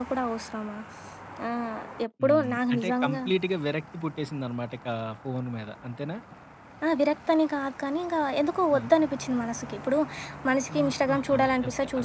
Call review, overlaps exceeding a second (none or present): present